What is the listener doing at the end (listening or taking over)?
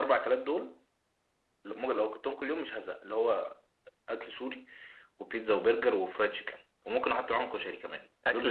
taking over